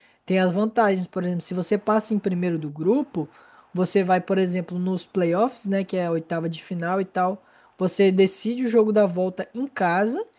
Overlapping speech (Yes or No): No